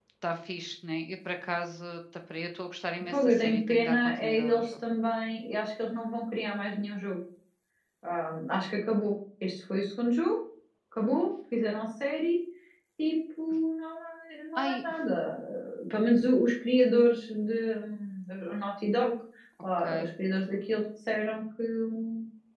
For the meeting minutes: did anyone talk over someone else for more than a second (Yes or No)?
Yes